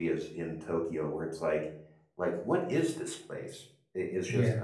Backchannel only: Yes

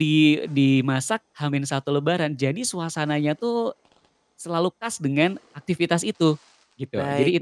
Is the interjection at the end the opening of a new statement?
Yes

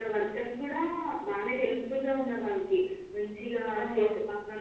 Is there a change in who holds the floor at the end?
No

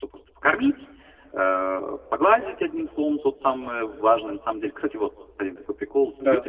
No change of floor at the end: Yes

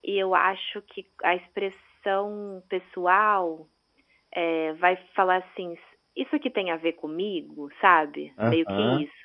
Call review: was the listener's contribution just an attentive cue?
No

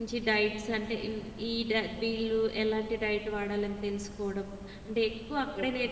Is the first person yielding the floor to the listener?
No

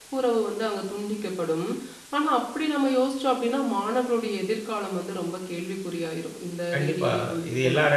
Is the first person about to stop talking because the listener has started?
Yes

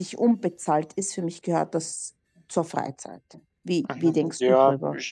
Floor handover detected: Yes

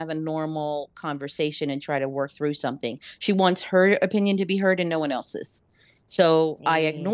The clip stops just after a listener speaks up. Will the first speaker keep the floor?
Yes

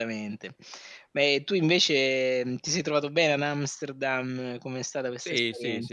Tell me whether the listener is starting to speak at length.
Yes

